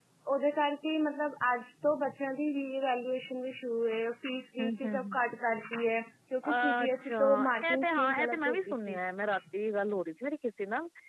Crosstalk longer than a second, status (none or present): present